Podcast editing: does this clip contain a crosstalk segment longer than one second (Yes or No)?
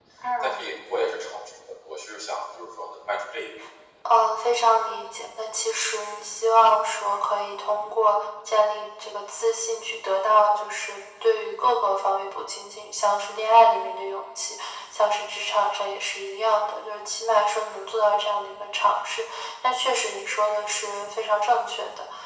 No